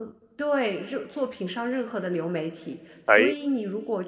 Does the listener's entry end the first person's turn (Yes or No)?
No